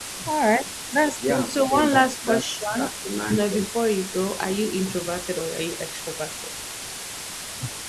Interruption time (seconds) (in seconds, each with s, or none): 1.3 s